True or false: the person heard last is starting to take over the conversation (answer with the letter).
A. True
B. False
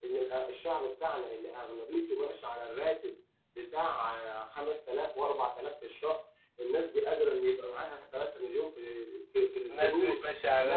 A